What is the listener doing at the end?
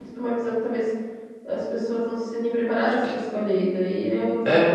taking over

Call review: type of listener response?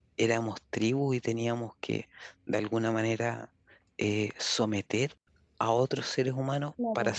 listening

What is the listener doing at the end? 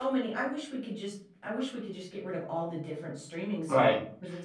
taking over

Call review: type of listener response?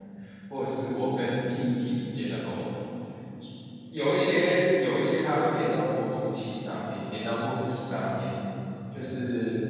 listening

